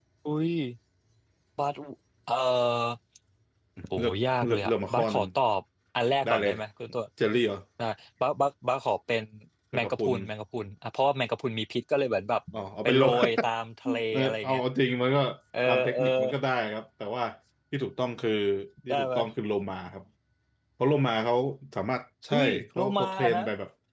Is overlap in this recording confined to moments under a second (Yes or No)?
No